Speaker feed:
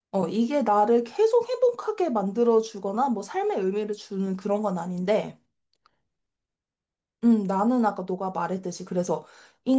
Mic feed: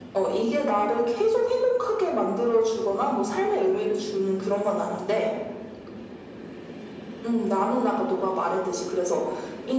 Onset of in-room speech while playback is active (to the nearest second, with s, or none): none